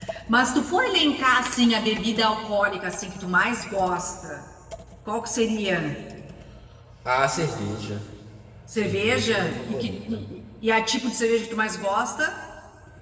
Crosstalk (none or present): present